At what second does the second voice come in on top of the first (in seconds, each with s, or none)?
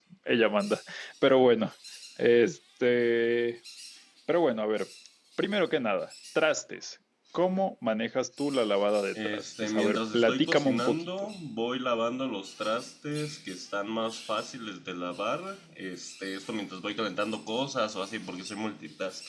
9.2 s